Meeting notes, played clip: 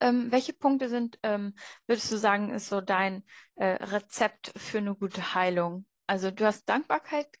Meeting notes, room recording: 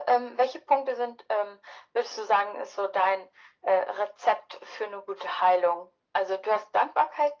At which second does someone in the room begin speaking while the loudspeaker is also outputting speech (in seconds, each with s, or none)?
none